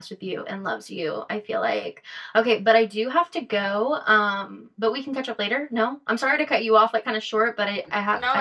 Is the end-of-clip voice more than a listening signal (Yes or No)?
Yes